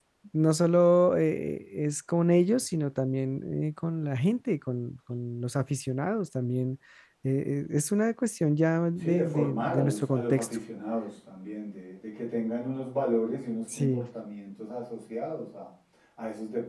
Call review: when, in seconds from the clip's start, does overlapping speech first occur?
9 s

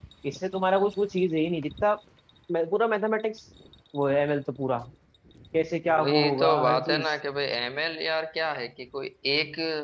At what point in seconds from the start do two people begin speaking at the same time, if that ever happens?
6 s

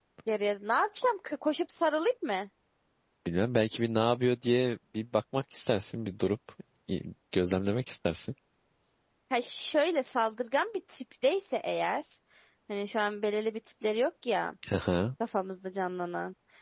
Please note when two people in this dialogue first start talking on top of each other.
none

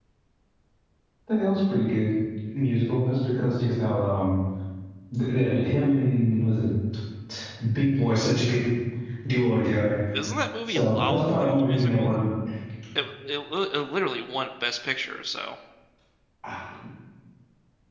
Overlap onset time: 11 s

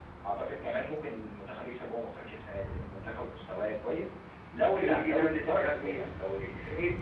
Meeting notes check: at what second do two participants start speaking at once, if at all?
5 s

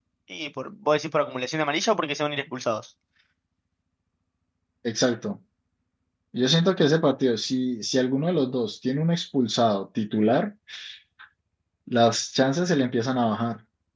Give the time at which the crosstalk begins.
none

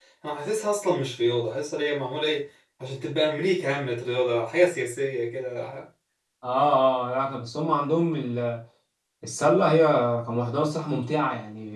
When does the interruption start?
none

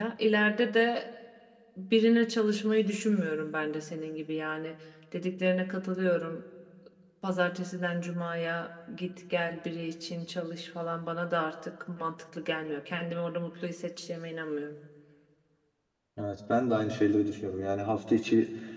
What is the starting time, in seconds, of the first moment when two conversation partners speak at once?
none

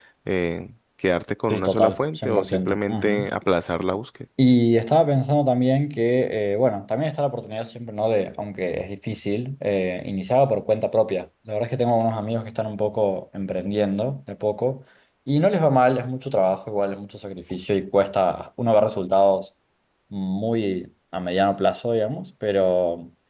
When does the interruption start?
2 s

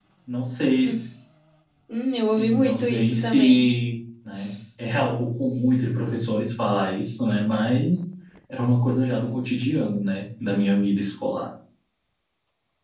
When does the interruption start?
2 s

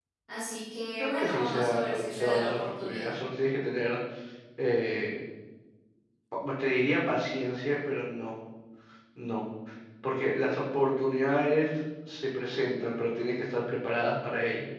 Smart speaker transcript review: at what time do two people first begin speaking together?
1 s

